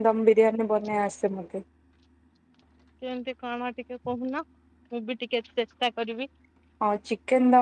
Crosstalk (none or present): none